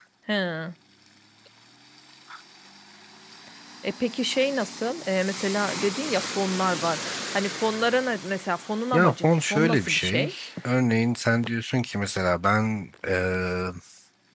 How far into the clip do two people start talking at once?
9 s

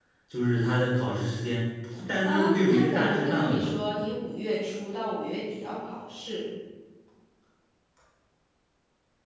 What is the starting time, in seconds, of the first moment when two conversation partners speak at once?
2 s

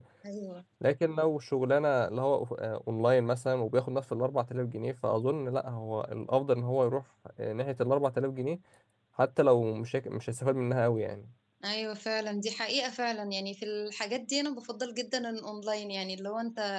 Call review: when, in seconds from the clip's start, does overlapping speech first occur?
none

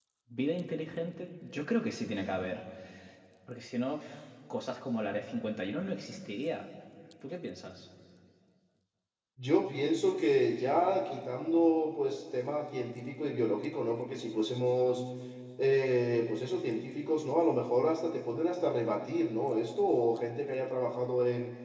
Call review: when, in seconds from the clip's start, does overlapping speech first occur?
none

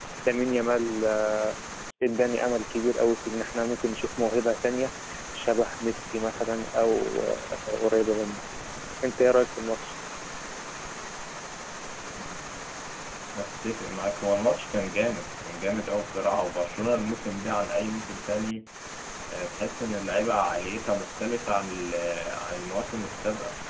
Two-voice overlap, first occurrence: none

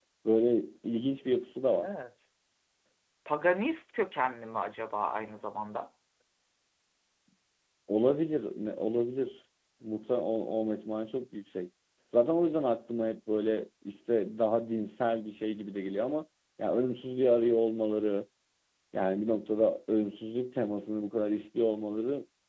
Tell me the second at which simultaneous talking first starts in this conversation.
none

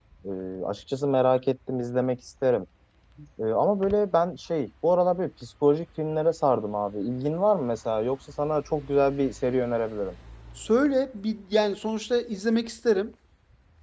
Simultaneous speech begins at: none

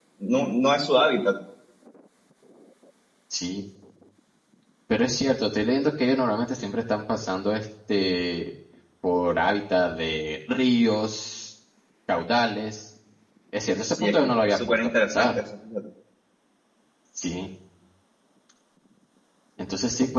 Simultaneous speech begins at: 14 s

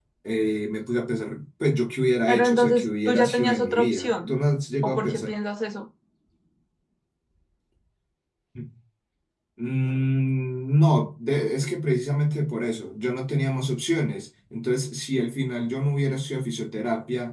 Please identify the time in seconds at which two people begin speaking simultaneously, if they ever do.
2 s

